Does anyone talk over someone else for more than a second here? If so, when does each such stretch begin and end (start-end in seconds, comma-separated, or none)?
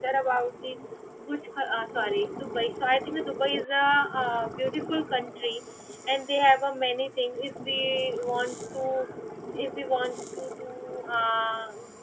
none